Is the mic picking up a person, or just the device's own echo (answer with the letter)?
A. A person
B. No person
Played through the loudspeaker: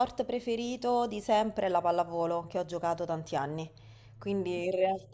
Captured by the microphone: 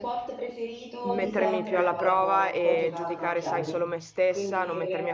A